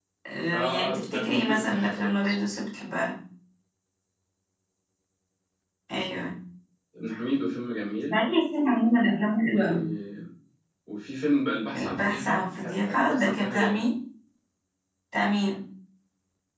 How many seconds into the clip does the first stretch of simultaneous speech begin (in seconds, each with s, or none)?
0.5 s